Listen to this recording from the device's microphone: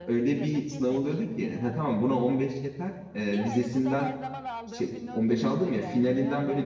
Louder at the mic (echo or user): user